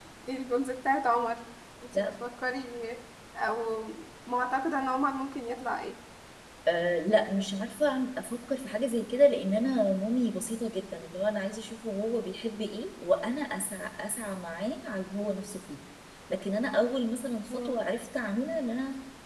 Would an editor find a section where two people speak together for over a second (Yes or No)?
No